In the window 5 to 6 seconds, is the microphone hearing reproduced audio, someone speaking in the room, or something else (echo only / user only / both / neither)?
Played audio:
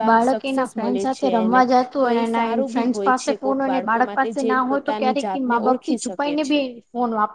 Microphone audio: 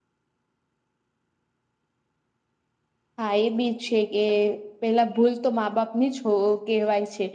user only